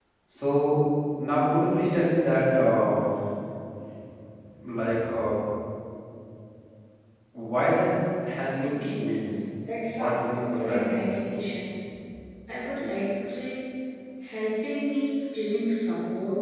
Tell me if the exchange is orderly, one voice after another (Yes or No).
No